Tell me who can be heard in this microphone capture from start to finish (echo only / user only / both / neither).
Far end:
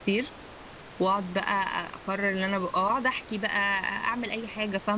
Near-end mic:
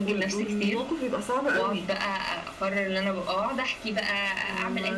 both